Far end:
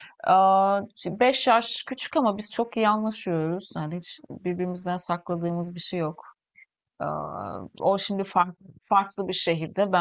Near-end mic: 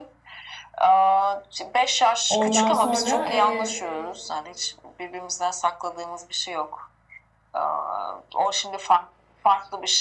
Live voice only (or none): Ondan sonra e,